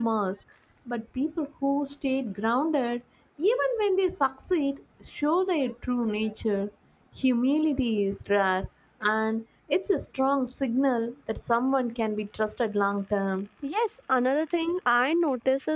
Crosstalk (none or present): none